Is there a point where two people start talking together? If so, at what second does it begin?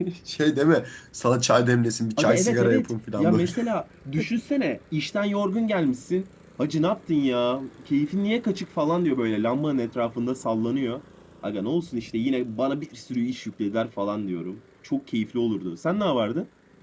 2.2 s

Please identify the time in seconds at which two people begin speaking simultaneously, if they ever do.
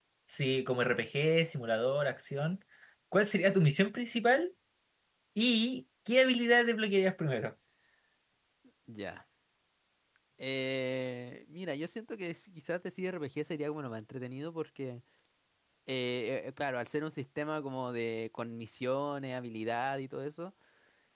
none

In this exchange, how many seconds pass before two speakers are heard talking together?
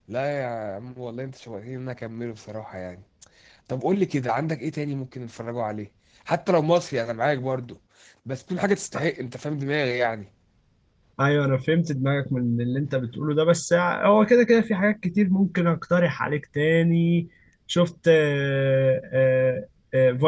none

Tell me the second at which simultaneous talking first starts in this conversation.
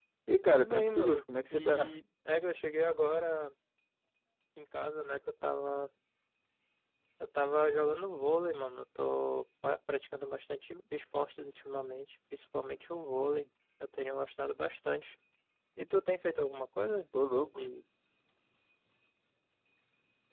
0.5 s

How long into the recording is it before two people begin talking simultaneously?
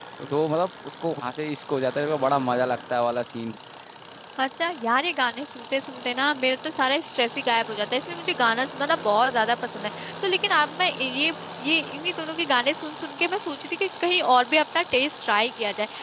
none

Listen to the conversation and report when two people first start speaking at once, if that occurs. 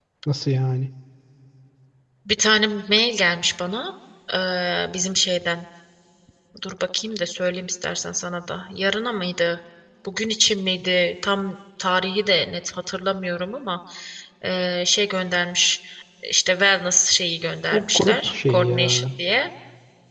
17.7 s

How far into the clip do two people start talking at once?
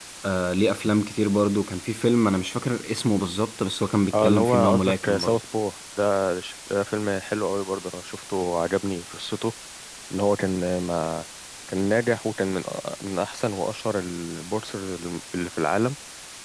4.1 s

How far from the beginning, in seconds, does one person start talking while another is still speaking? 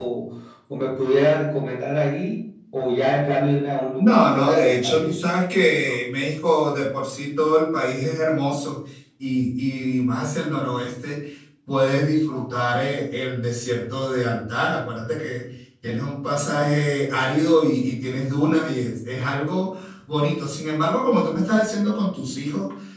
4.0 s

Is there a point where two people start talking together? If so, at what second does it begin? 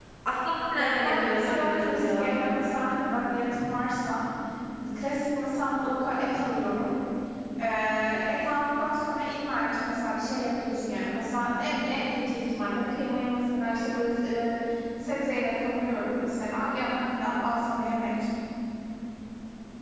0.8 s

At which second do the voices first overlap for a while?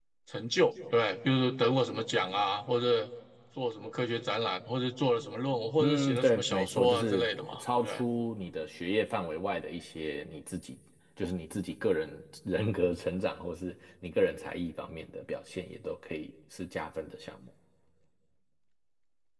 5.8 s

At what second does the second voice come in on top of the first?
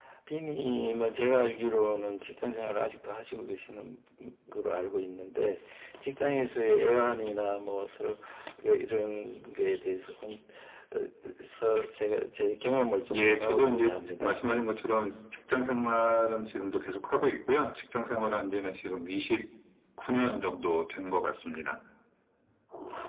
13.1 s

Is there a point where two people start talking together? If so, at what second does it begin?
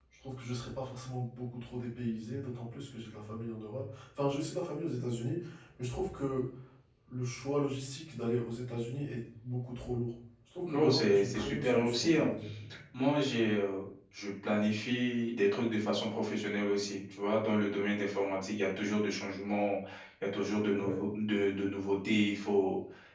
10.6 s

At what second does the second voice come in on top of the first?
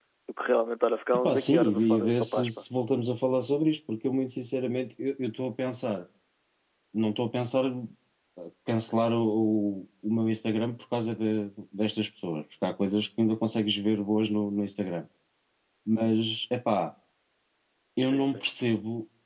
1.1 s

